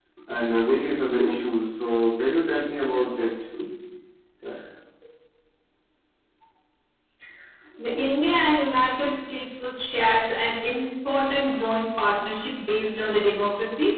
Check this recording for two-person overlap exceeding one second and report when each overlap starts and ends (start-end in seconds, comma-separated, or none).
none